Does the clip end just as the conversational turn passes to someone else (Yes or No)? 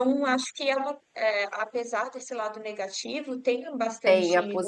Yes